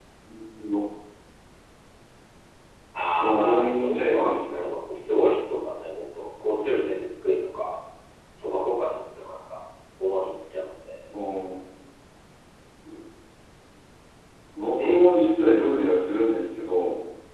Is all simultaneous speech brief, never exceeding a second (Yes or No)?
No